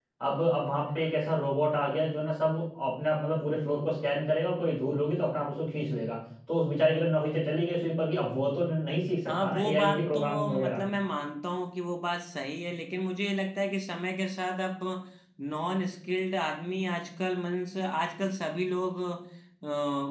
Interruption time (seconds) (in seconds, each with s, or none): 9.3 s